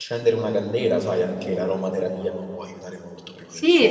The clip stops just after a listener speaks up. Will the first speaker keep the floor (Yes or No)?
No